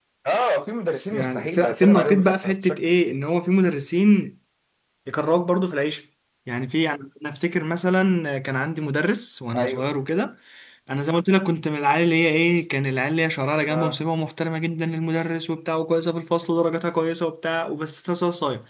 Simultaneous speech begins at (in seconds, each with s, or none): 1.1 s